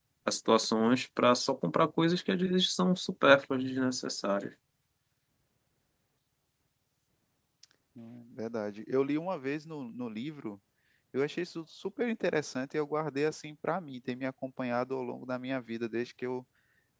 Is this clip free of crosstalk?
Yes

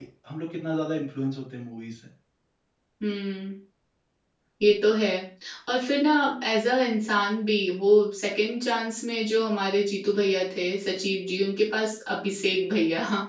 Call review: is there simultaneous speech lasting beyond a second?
No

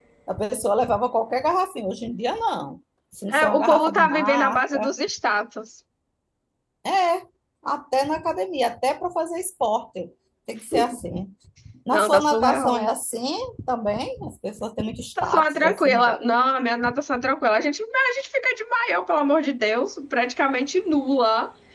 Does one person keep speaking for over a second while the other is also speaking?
Yes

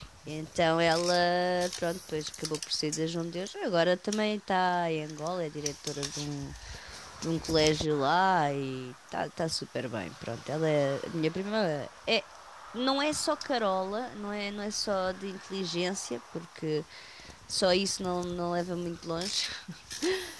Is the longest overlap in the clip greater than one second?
No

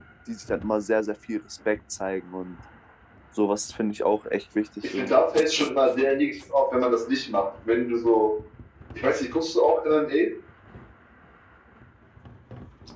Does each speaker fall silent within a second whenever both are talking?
Yes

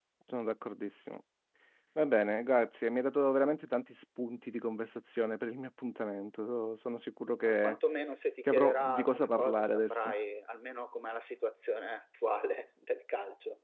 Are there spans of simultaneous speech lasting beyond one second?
Yes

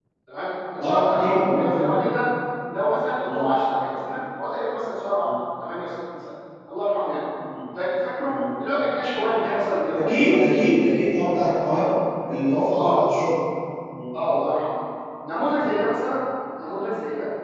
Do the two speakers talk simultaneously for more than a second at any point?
Yes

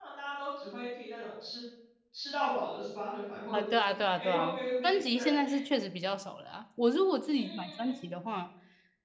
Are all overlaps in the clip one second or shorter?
No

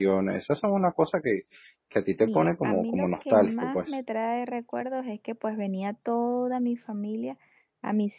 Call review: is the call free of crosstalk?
No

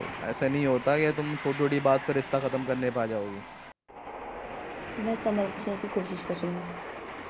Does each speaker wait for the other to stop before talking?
Yes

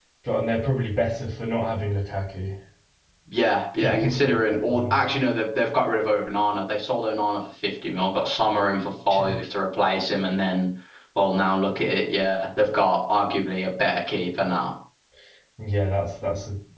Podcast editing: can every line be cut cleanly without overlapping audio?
No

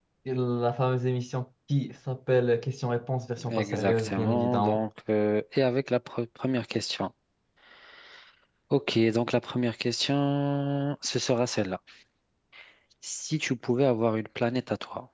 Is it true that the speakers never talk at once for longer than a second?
No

